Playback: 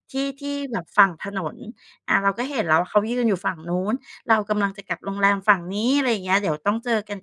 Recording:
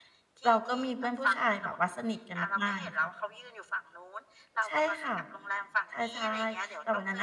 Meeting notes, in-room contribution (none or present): present